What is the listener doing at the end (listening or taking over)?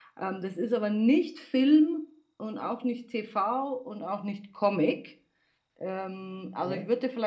listening